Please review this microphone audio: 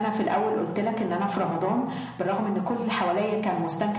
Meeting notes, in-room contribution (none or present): none